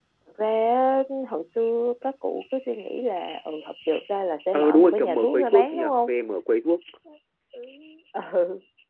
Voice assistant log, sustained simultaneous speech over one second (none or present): present